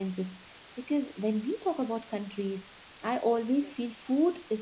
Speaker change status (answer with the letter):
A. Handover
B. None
B